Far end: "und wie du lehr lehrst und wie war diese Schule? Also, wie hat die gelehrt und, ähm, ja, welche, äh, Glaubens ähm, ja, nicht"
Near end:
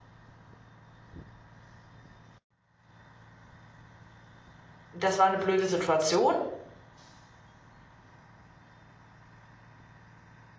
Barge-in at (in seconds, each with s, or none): 4.9 s